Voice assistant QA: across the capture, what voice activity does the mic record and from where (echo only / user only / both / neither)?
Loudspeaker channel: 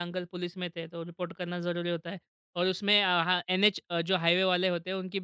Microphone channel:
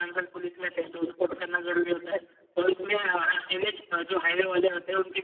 echo only